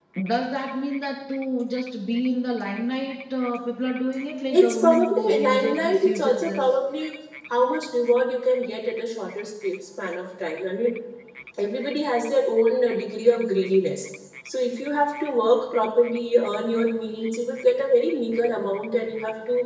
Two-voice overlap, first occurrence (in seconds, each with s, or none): 4.5 s